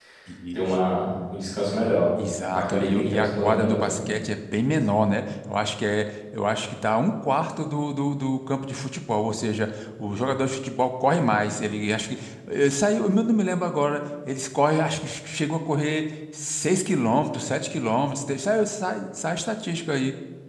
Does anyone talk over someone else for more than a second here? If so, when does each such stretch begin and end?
2.5-4.0

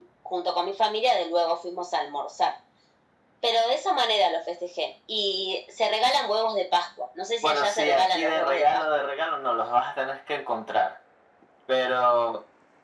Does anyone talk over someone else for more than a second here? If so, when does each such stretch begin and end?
7.4-8.8

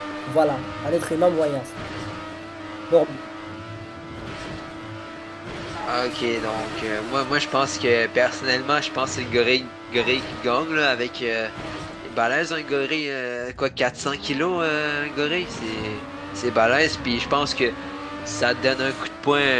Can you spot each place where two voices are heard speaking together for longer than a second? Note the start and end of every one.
none

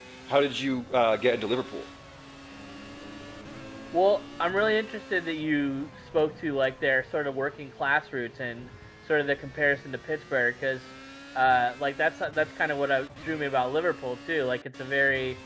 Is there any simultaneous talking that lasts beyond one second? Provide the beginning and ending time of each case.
none

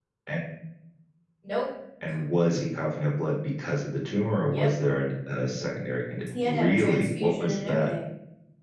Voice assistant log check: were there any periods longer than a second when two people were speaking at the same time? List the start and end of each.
6.4-7.9

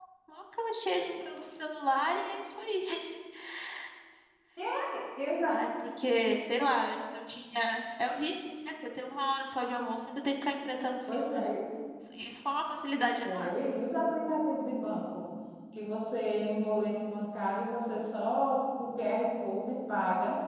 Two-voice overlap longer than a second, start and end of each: none

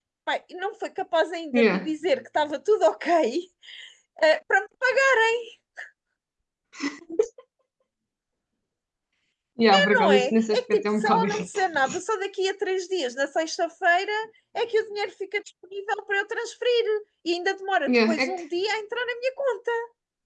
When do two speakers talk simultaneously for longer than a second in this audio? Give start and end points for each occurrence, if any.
9.9-11.6

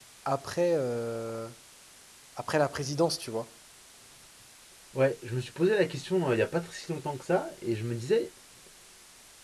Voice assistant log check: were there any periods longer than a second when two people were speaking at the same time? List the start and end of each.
none

